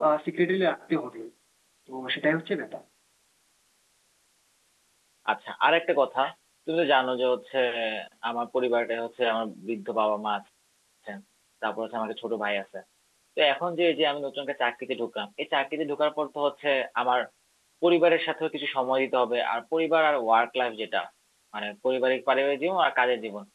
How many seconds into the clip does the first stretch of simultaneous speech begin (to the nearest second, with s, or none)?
none